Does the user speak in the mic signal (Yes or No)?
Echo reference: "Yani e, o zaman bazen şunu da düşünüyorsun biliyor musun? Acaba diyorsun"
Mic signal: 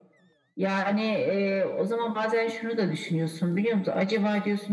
No